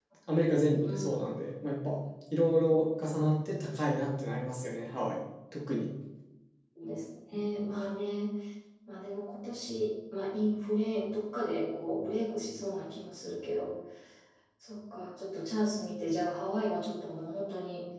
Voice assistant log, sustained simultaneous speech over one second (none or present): none